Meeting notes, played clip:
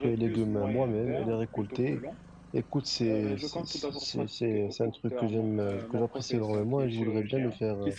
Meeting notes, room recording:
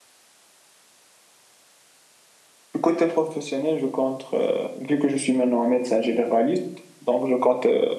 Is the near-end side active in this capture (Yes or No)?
Yes